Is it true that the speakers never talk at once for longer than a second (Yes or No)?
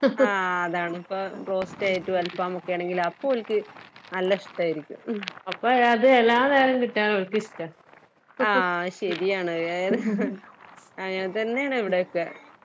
Yes